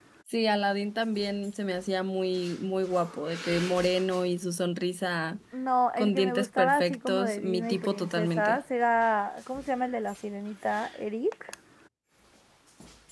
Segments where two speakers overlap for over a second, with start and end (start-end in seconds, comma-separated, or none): 6.0-8.6